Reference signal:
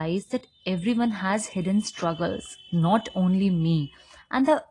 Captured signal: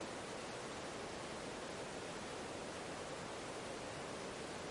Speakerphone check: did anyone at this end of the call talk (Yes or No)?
No